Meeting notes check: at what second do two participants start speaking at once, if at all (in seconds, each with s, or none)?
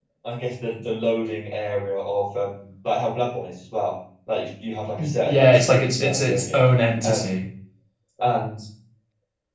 5.2 s